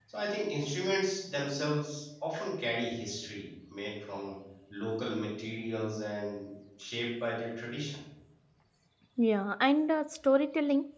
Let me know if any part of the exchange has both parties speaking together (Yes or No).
No